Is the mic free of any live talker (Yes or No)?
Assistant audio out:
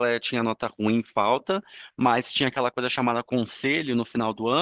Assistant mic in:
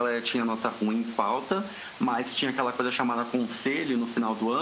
Yes